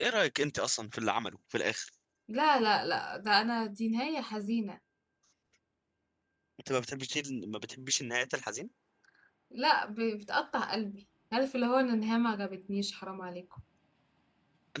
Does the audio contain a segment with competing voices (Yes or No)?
No